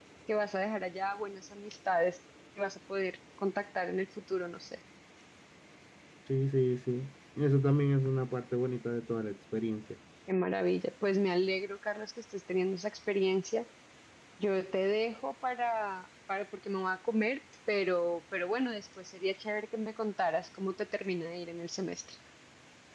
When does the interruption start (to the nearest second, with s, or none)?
none